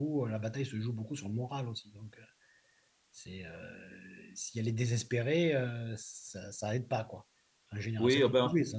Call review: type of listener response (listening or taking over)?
taking over